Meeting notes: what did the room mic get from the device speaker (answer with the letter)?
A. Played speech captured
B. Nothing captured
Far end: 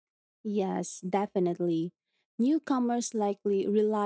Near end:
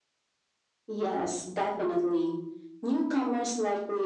A